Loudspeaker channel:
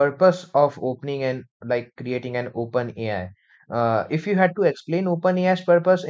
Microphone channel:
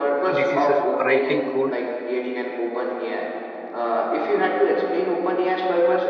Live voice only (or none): diseases, writing code,